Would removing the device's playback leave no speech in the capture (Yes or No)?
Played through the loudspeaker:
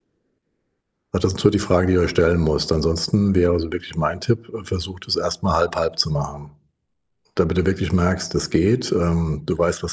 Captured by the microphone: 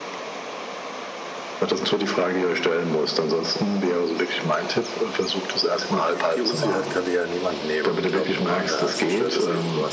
No